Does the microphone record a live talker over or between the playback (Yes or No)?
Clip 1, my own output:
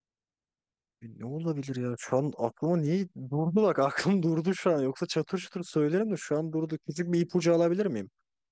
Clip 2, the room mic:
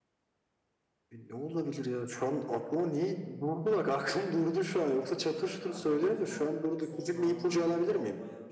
Yes